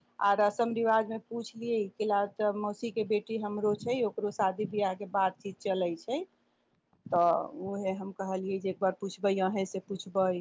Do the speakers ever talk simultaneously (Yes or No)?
No